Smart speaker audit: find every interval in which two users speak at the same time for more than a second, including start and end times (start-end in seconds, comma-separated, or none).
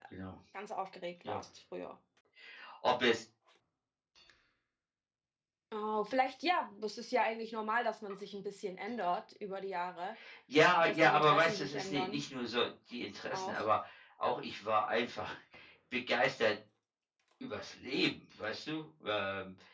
10.8-12.2